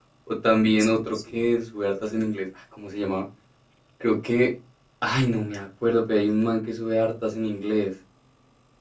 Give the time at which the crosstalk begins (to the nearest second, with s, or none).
none